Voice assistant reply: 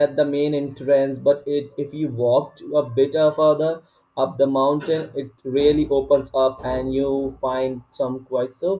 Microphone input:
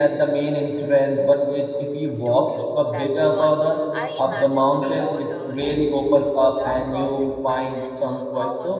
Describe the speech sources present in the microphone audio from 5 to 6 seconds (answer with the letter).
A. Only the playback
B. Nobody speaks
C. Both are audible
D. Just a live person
C